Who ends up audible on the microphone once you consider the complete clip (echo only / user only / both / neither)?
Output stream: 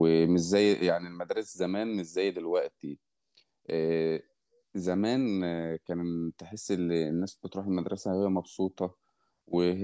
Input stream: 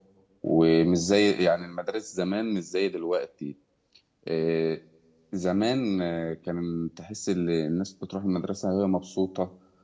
echo only